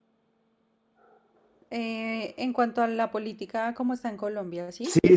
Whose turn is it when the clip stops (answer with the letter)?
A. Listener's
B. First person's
A